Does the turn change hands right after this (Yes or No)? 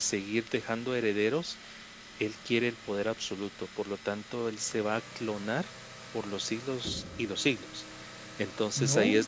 No